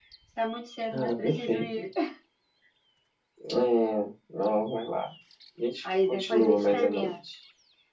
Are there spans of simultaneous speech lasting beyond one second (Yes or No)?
Yes